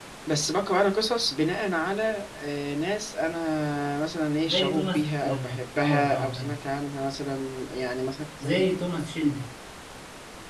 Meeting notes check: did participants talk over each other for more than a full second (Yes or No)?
Yes